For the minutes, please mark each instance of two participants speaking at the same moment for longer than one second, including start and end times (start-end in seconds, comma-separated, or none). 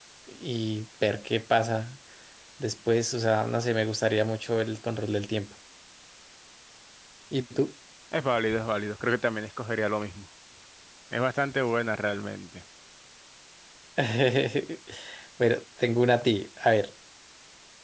none